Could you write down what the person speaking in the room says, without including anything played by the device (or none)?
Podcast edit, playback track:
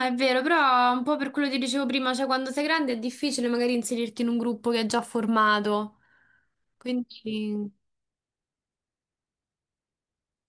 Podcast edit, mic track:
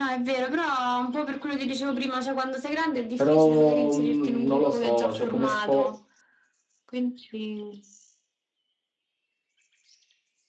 Però, mh, non lo so, cioè come sport,